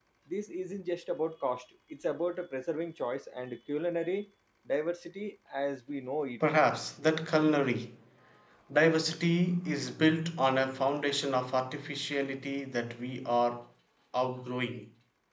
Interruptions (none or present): none